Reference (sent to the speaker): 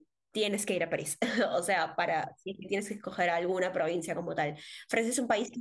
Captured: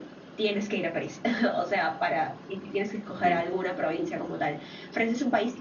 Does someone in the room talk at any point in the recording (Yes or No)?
Yes